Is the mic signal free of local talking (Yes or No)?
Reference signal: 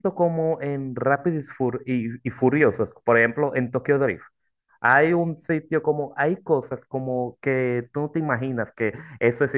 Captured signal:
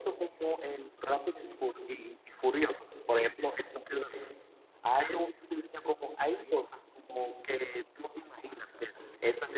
No